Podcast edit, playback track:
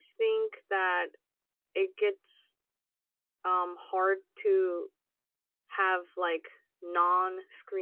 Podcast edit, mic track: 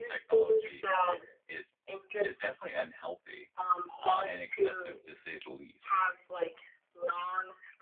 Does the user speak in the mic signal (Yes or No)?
Yes